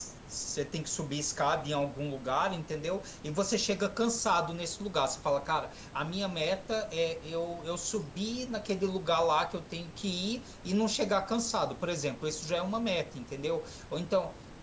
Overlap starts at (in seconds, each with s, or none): none